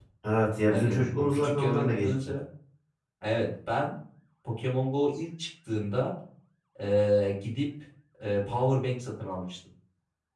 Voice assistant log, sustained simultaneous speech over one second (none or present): present